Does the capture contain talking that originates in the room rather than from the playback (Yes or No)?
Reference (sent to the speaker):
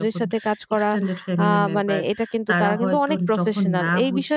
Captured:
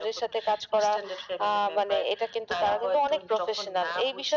No